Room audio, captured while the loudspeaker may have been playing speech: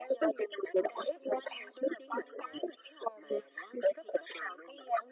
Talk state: echo only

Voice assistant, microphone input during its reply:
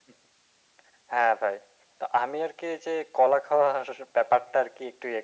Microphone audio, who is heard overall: echo only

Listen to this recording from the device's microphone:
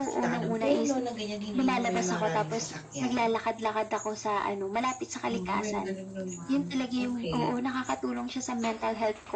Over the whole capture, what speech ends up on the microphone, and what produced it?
both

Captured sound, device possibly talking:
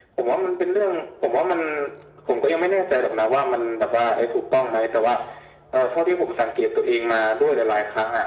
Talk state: echo only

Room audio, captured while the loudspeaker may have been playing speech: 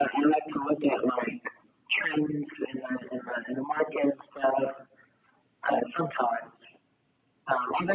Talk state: echo only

